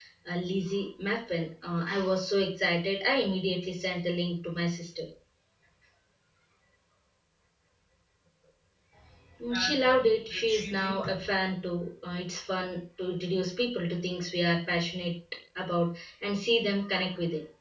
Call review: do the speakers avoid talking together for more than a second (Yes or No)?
No